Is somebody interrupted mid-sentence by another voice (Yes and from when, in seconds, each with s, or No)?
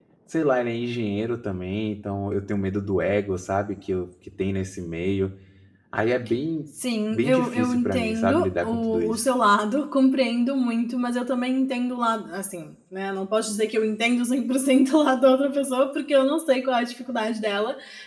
Yes, from 7.1 s